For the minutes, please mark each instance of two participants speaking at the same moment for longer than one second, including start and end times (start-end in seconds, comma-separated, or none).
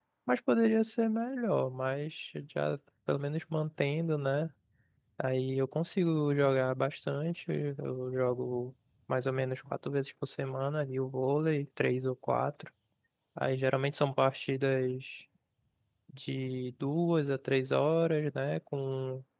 none